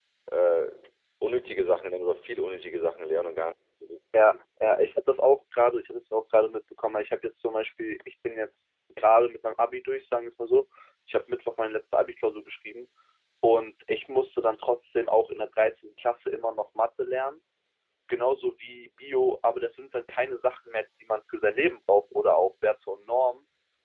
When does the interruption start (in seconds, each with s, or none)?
none